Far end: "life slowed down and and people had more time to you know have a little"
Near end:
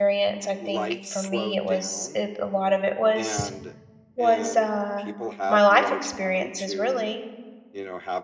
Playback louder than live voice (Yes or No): No